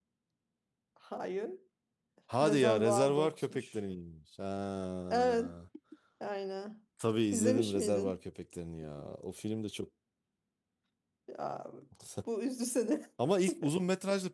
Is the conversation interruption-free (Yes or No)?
No